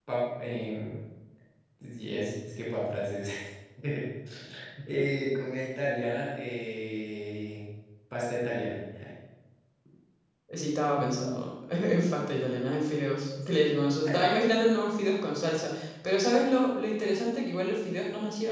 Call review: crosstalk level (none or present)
none